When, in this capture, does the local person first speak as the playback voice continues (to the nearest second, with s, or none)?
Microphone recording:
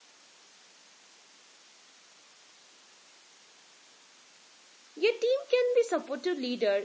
5 s